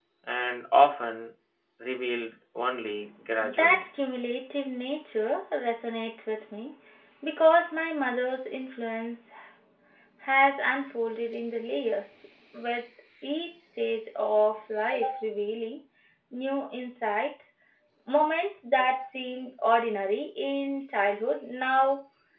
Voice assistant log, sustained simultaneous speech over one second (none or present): none